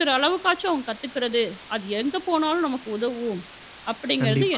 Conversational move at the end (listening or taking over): taking over